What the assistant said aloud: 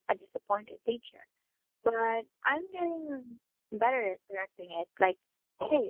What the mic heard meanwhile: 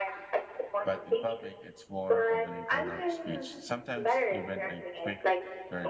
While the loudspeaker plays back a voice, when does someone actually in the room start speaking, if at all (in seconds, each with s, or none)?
0.8 s